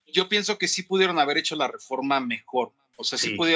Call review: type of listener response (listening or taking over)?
listening